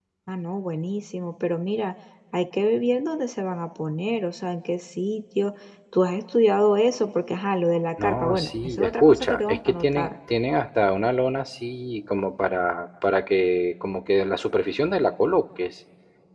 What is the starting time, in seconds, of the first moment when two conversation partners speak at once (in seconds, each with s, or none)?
8.0 s